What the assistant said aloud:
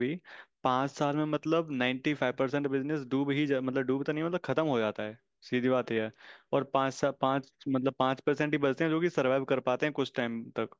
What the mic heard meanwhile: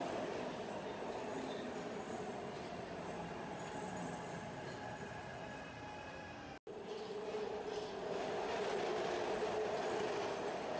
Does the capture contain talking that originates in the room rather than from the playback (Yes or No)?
No